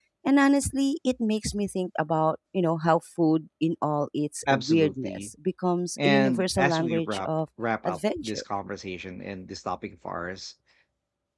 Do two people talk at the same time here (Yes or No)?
Yes